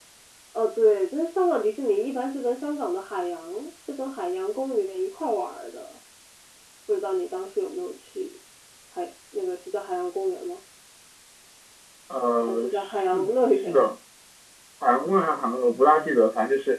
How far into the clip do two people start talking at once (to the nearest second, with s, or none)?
12 s